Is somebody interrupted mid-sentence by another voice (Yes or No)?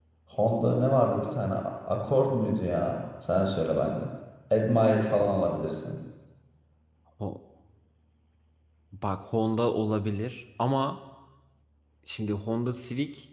No